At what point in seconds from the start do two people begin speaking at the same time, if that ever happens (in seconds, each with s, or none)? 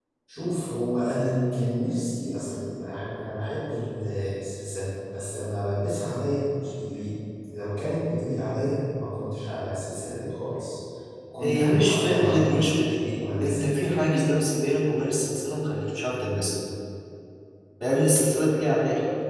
11.4 s